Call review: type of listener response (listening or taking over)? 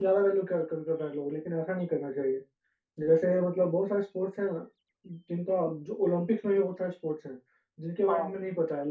listening